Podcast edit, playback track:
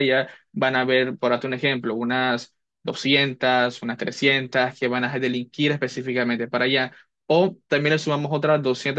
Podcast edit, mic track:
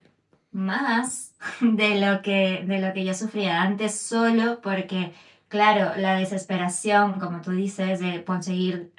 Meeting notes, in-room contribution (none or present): present